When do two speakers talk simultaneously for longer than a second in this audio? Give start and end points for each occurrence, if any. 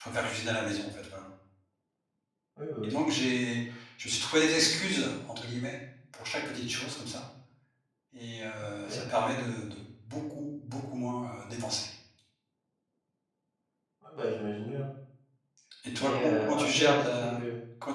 16.0-17.4

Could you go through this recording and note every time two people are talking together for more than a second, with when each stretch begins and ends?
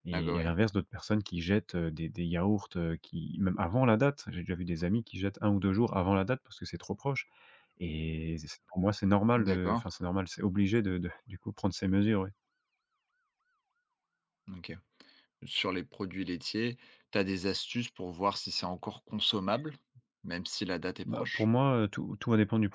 none

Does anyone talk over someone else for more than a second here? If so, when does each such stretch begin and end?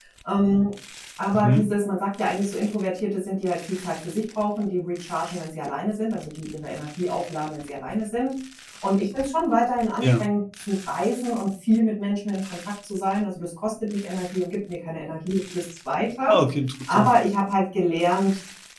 none

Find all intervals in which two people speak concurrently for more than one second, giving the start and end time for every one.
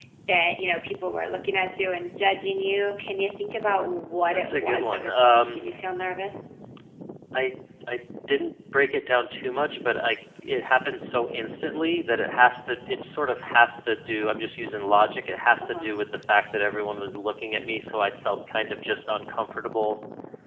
4.3-5.6

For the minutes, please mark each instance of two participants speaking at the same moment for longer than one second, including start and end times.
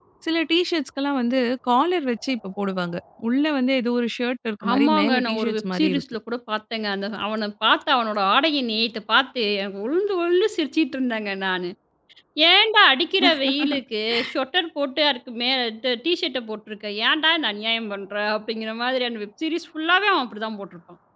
4.7-6.0

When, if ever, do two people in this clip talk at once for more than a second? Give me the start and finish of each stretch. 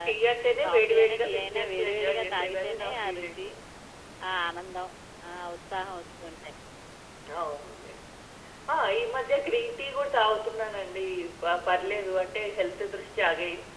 0.6-3.5

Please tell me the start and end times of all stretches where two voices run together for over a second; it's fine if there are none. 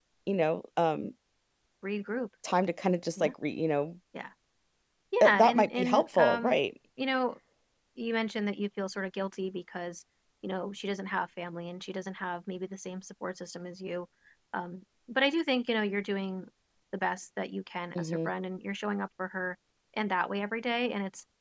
5.2-6.6

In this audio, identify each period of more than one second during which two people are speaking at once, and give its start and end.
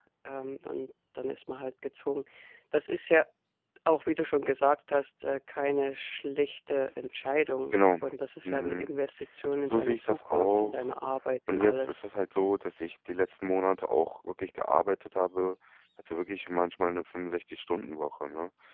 9.6-10.9

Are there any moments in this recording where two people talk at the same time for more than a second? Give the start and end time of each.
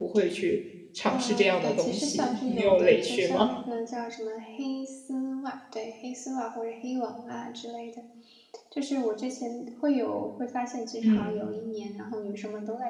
1.1-3.5

